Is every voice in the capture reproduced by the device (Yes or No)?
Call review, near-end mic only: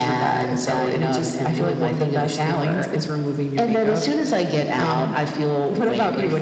Yes